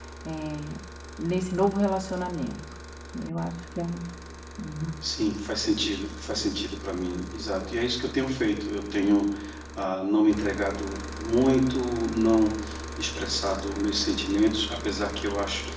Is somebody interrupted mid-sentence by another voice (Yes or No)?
No